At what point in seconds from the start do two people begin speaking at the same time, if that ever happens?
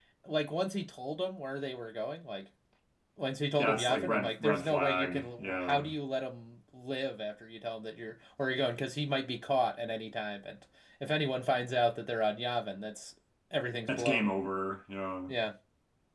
4 s

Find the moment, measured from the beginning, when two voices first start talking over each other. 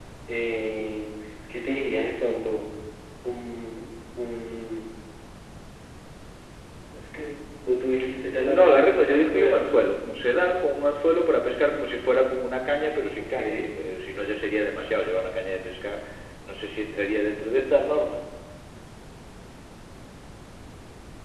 8 s

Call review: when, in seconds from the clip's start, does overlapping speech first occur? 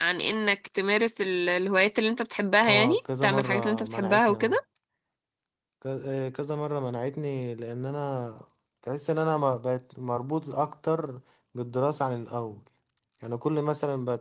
3 s

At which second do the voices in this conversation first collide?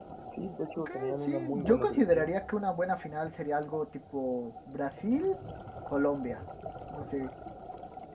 1 s

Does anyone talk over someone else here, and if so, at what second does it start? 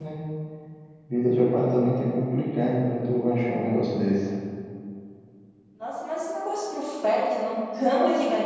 none

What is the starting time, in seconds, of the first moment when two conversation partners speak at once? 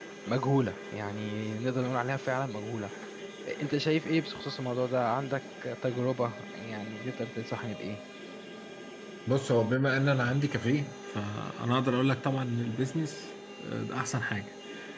none

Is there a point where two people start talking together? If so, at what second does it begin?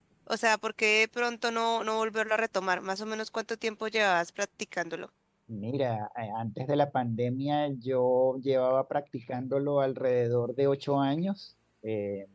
none

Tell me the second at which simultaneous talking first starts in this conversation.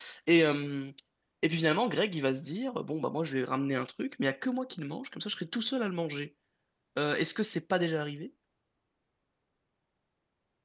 none

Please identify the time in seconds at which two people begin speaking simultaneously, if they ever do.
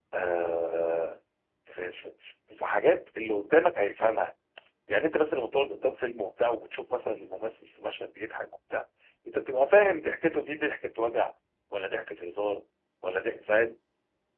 none

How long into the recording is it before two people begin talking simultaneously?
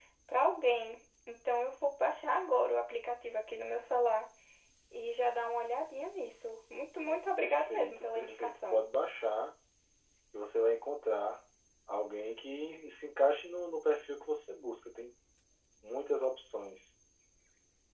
7 s

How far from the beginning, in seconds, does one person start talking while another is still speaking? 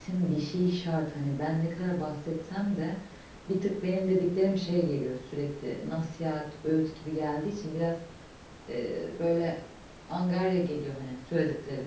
none

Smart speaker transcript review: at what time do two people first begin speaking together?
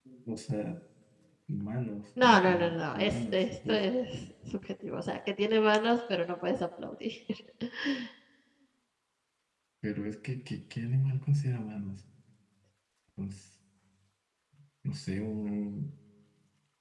2 s

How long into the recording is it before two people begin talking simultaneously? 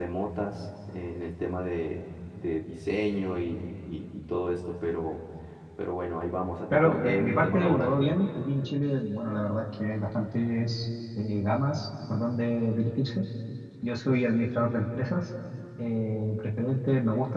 7 s

